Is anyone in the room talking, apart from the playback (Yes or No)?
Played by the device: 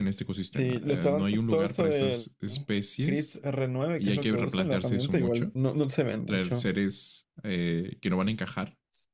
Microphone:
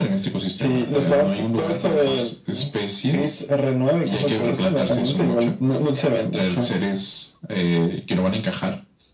No